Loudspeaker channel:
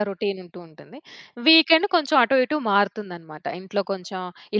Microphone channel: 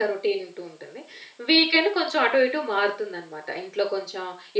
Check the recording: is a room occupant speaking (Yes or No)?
No